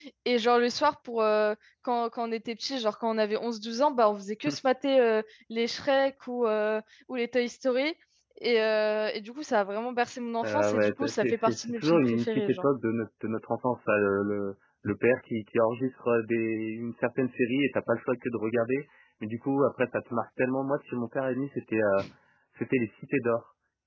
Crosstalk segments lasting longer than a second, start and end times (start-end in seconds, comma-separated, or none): 10.4-12.6